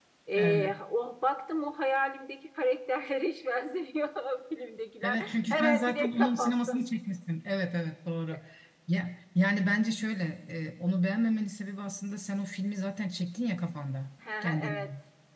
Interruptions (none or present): present